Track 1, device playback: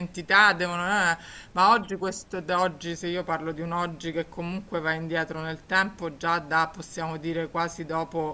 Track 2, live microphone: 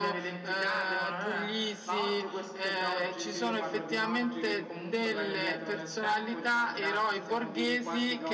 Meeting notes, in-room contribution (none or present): present